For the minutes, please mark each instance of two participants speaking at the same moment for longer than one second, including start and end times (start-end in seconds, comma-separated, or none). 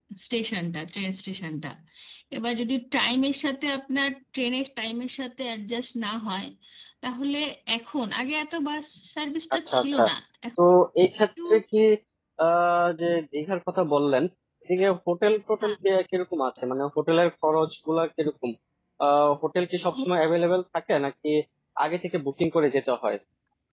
none